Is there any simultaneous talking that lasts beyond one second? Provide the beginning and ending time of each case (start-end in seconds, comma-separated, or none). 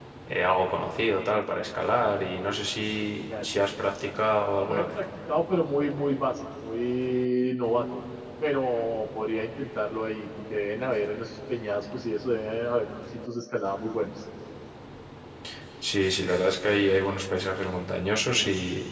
none